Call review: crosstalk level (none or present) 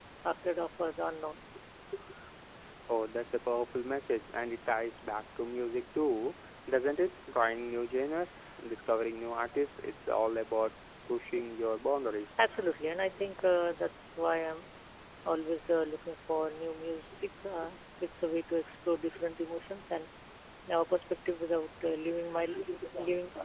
none